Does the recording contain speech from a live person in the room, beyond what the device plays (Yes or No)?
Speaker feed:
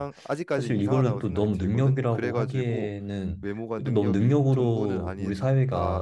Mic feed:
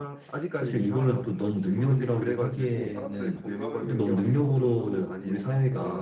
Yes